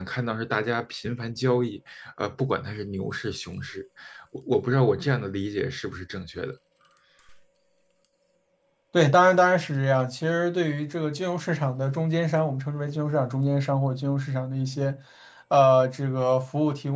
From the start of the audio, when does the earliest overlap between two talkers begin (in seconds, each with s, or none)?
none